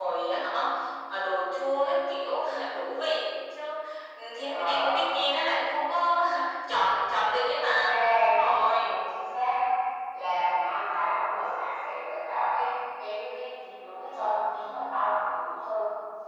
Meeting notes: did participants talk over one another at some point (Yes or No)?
Yes